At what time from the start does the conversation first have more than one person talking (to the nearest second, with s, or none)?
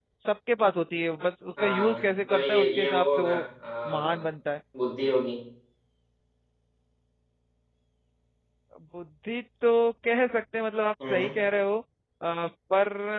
2 s